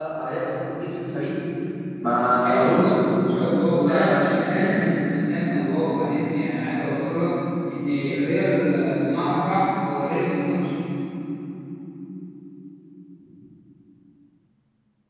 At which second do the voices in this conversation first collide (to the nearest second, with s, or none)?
3 s